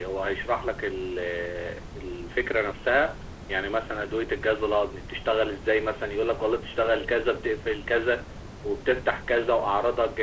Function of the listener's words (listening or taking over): listening